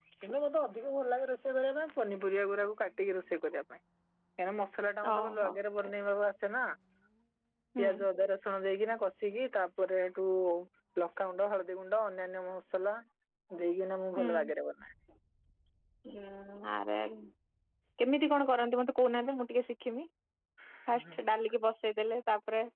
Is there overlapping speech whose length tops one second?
No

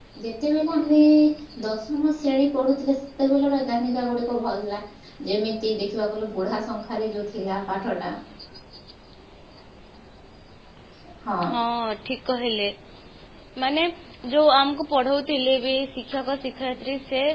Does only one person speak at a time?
Yes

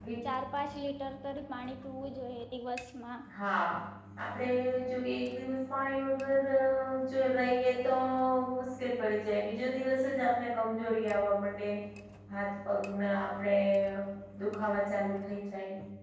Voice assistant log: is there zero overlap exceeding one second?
Yes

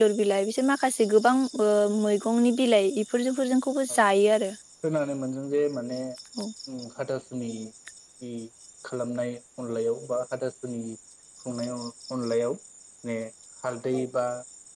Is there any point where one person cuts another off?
No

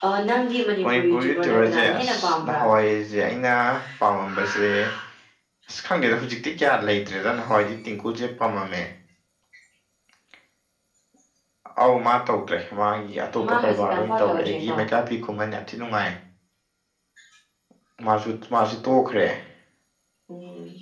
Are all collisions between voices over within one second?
No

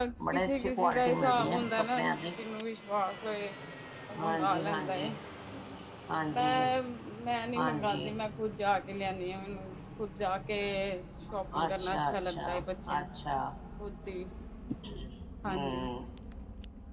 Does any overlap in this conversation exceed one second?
Yes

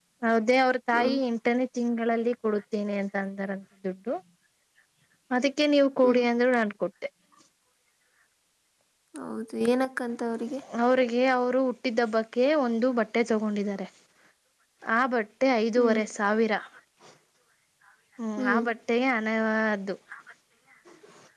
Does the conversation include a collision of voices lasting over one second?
No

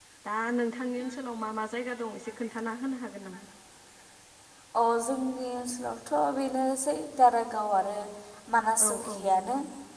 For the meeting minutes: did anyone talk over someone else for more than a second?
No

